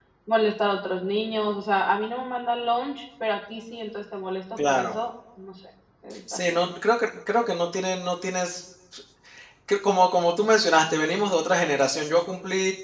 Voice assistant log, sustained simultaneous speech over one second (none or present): none